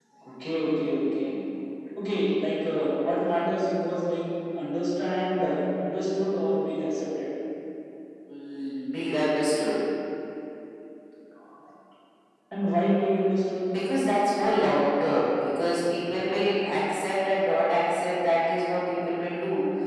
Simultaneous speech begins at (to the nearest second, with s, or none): none